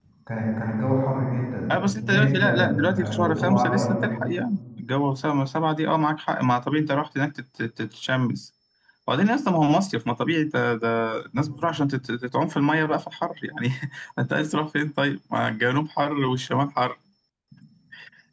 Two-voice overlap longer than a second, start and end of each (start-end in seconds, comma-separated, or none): 1.7-4.1